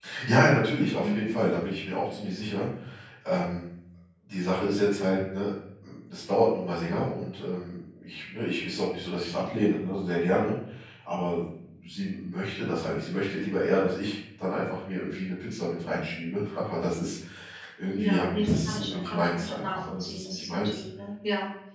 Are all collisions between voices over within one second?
No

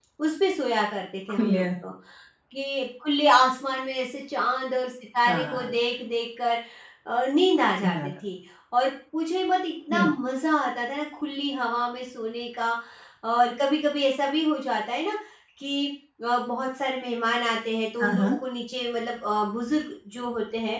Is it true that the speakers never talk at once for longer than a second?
Yes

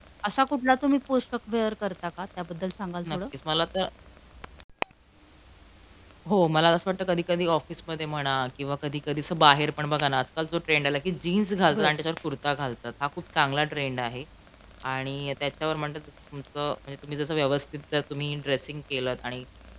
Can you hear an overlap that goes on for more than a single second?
No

